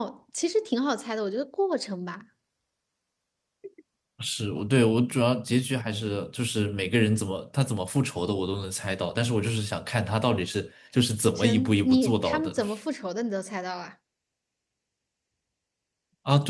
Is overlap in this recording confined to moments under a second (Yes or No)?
No